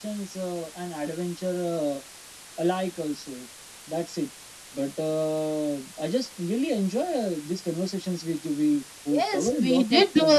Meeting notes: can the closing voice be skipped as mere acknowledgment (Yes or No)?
No